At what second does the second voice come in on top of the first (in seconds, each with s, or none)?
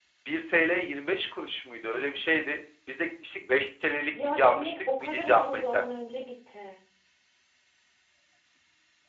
4.1 s